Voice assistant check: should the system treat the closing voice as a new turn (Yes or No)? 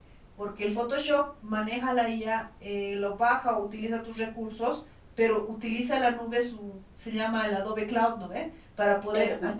No